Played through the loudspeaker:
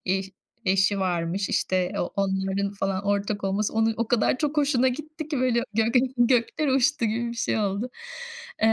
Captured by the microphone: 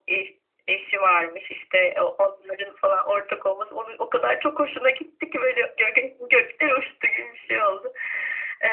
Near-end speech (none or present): none